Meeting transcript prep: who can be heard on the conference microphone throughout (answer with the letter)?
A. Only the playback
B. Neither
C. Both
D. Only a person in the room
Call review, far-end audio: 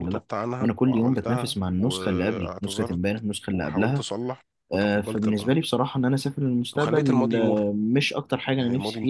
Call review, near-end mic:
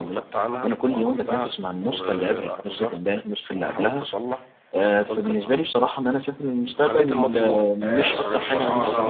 C